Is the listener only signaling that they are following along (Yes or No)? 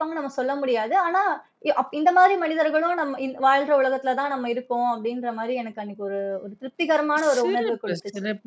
No